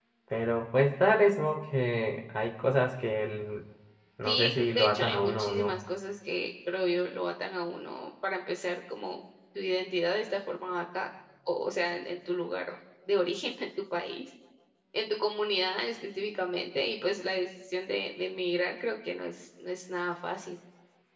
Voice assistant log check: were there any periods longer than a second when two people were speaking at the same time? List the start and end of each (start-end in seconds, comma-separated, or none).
4.2-5.7